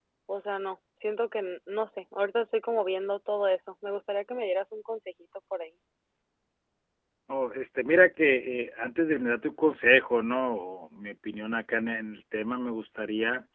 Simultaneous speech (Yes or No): No